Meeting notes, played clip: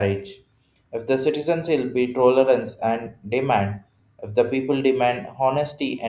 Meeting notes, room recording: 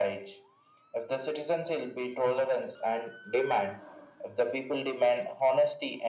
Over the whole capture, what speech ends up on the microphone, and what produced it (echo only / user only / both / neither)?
echo only